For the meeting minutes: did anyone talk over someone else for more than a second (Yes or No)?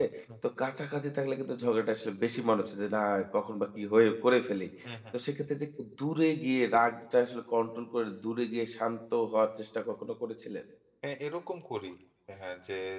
No